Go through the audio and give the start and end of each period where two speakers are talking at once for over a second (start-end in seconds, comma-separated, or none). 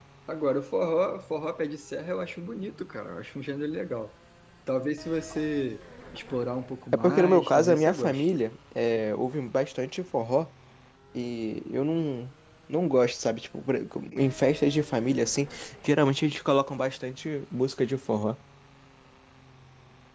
6.9-8.3